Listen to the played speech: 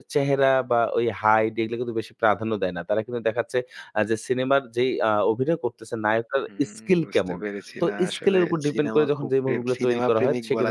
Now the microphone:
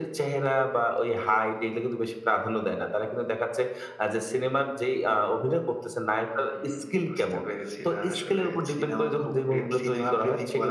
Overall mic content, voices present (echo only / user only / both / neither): echo only